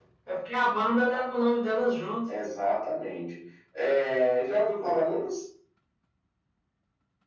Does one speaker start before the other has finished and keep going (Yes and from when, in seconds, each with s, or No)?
No